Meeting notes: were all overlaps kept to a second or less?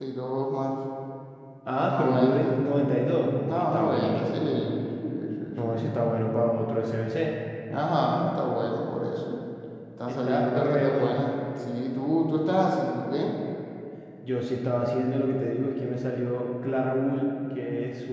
No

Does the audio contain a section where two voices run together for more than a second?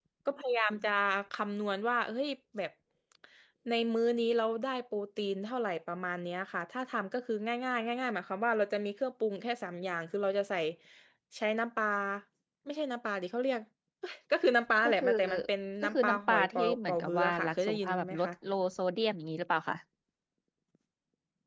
Yes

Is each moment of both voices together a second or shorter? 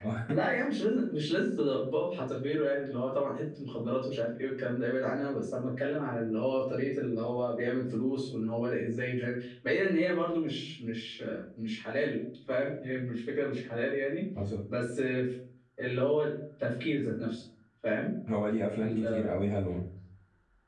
Yes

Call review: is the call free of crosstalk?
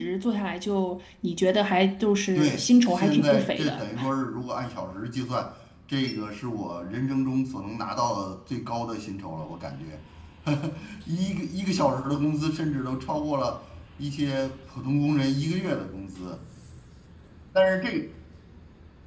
No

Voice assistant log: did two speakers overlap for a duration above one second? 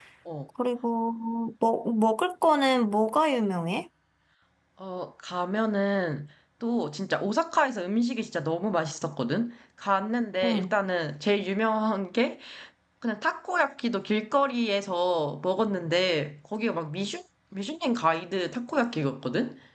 No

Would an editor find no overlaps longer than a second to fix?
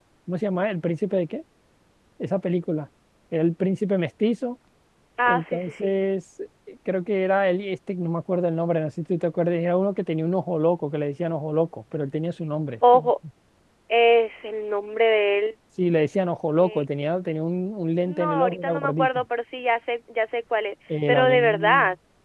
No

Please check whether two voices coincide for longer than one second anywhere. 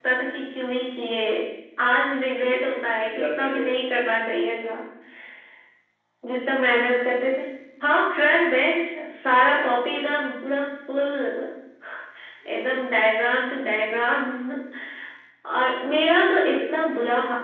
Yes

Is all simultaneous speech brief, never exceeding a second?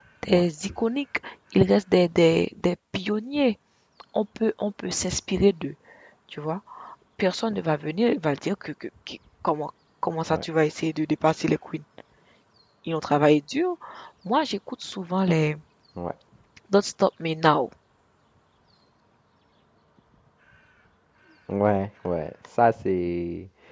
Yes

